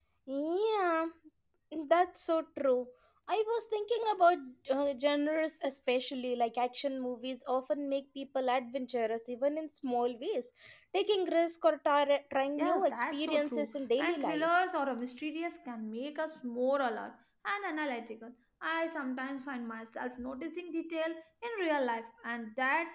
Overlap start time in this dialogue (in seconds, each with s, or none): 12.6 s